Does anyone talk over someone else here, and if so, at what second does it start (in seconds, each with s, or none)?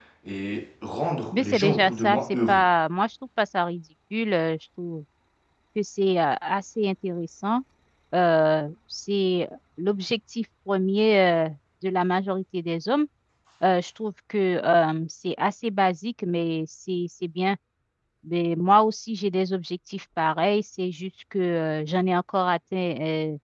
1.3 s